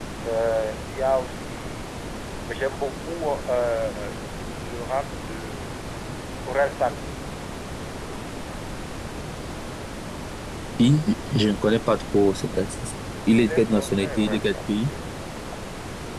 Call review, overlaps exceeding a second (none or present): present